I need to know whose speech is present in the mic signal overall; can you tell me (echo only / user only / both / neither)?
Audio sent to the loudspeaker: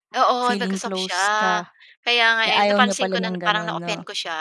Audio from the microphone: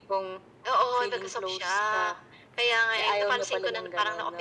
echo only